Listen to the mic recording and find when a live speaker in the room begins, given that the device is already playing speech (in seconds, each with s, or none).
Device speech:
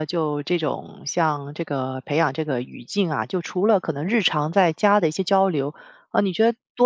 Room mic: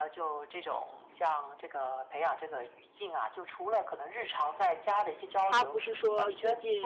5.4 s